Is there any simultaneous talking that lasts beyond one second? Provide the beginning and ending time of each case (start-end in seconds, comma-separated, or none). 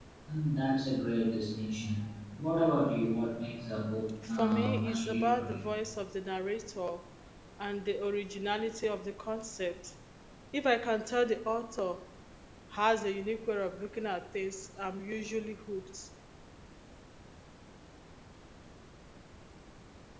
4.3-5.6